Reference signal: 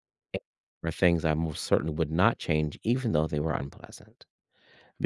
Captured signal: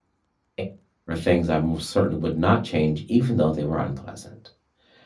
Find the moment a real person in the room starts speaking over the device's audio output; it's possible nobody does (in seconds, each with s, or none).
none